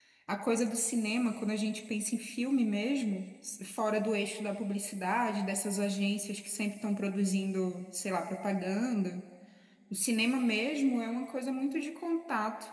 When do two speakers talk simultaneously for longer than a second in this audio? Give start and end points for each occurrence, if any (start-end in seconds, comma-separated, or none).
none